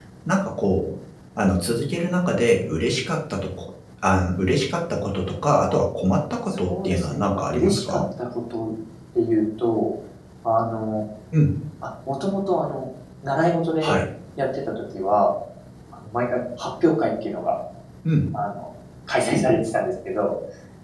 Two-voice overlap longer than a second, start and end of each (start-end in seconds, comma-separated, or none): 6.5-8.0